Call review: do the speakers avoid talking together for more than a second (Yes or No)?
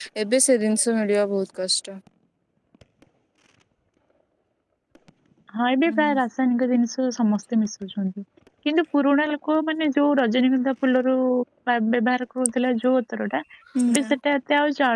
Yes